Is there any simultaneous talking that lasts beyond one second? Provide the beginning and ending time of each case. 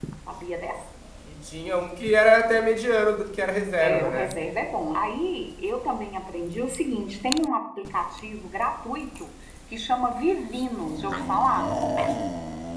none

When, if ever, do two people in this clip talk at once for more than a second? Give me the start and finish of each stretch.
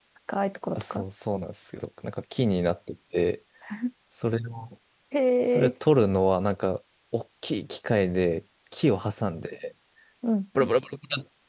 none

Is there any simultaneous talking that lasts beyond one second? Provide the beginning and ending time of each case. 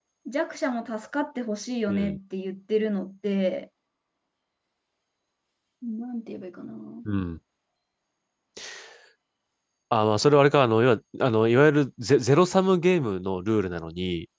none

